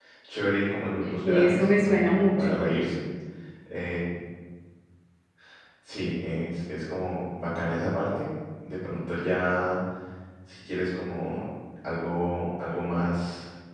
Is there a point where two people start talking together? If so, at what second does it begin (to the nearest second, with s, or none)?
1 s